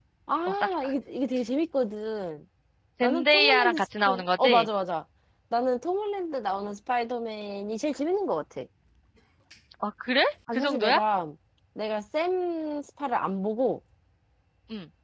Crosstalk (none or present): present